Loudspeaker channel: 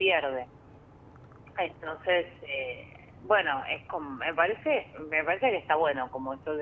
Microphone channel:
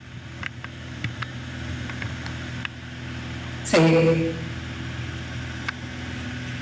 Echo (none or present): none